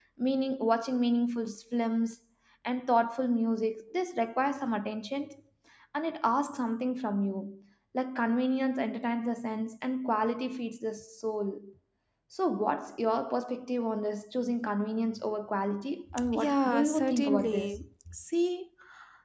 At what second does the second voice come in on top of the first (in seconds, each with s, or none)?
16.1 s